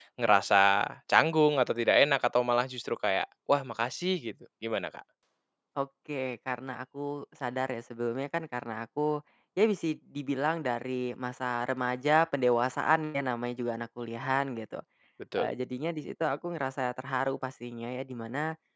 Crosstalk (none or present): none